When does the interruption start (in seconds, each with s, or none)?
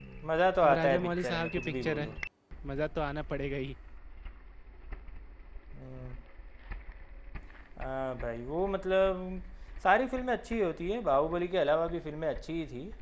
0.6 s